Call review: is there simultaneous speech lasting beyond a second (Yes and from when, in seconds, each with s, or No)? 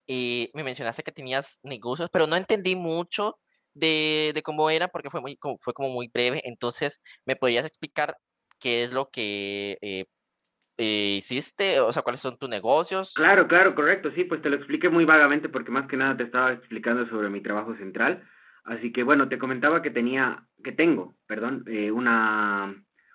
No